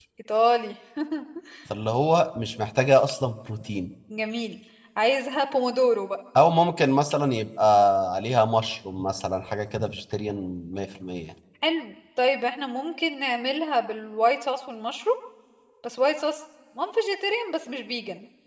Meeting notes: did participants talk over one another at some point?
No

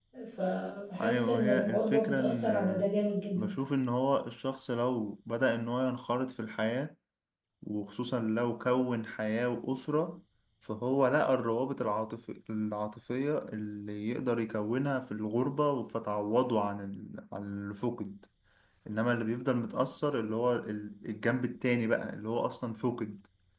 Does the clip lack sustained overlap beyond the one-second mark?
No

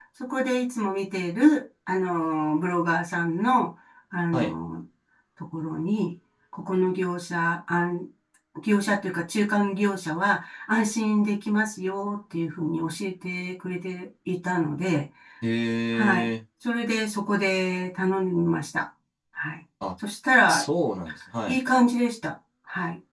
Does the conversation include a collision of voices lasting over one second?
No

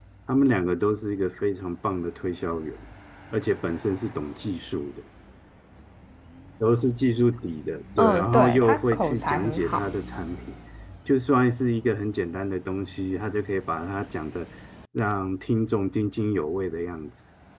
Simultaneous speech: Yes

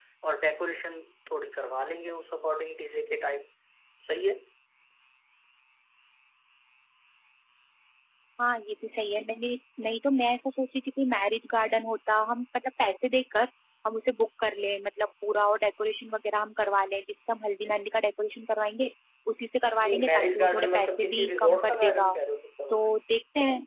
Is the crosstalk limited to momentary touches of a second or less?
No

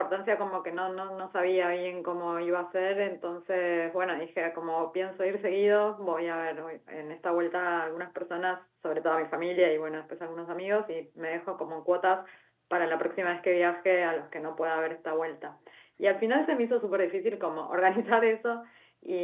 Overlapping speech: No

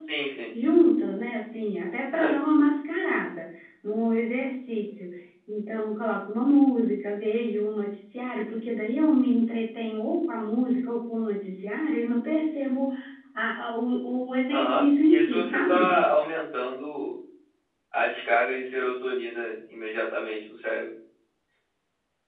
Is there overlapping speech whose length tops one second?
Yes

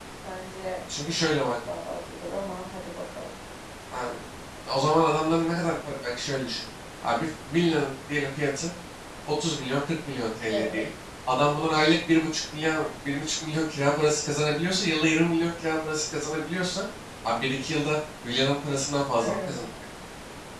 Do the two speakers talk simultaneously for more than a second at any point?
No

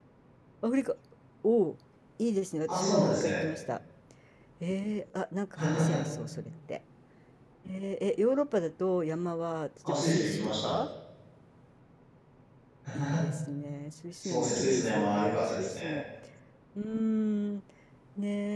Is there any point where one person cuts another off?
Yes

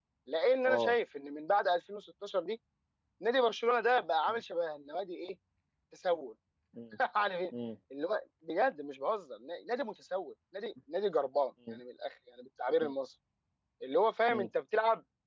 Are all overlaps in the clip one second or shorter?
Yes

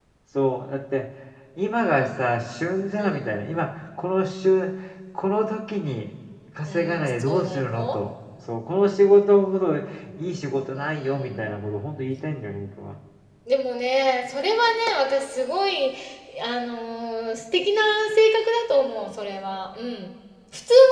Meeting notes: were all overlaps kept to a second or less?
No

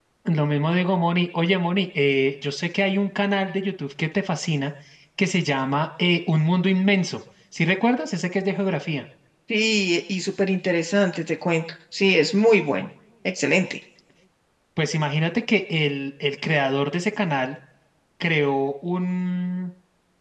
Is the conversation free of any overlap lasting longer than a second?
Yes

